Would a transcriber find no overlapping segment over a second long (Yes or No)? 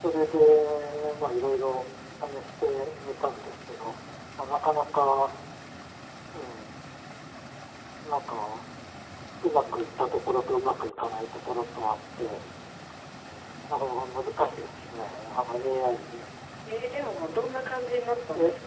Yes